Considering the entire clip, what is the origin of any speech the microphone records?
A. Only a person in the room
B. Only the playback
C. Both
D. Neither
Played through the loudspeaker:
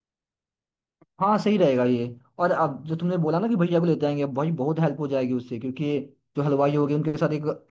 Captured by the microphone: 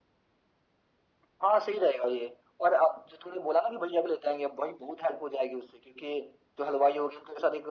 B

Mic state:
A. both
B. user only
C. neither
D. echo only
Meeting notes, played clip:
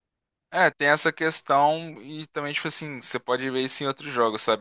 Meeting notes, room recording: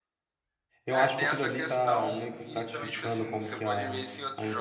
A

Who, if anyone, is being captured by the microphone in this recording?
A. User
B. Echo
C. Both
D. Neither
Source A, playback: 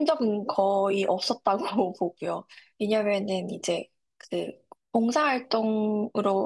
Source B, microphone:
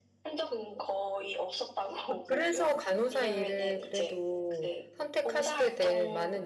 C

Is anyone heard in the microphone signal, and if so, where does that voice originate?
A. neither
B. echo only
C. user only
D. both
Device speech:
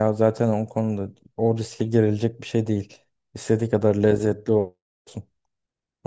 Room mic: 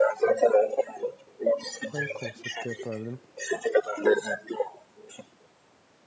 D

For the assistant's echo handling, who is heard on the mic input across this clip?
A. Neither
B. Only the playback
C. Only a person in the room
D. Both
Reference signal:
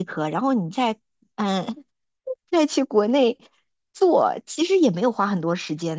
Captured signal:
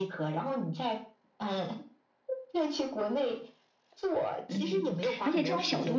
D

